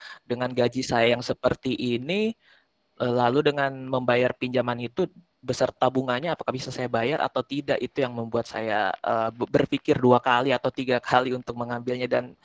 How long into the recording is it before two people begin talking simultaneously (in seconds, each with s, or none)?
none